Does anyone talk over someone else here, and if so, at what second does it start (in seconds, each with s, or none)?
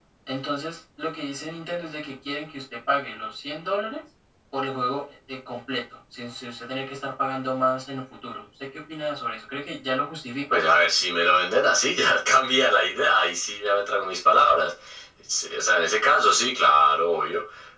none